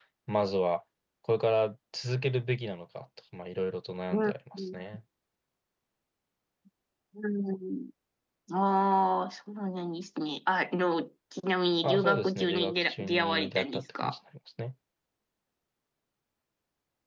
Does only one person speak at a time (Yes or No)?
No